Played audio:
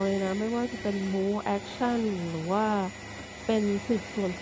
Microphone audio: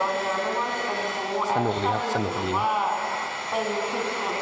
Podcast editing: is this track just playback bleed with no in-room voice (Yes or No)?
No